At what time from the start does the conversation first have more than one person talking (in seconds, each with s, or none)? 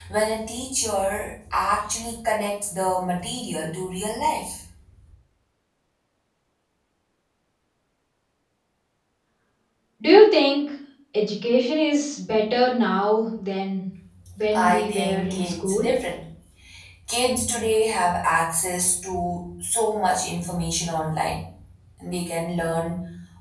14.6 s